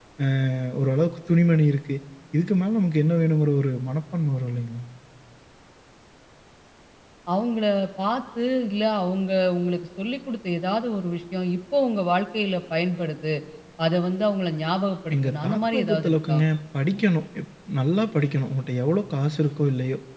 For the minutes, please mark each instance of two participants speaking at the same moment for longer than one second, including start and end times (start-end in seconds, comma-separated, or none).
15.1-16.4